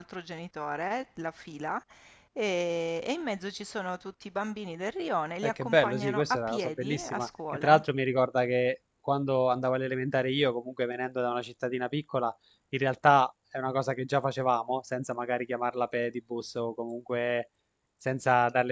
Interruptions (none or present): present